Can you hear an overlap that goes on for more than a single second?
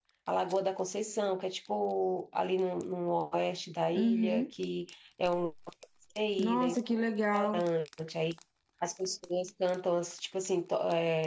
No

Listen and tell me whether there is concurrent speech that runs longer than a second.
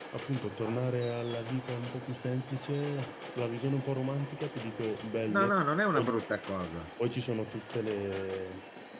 No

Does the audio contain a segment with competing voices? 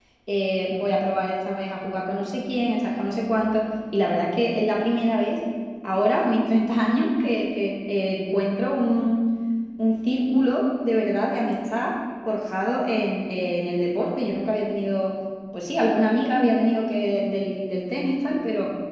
No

